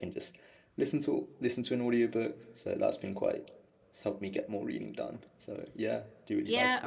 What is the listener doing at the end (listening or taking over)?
taking over